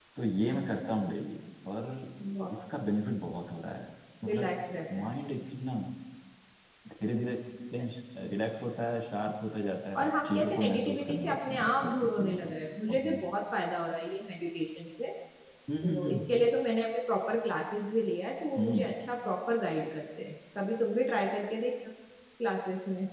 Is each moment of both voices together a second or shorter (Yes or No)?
No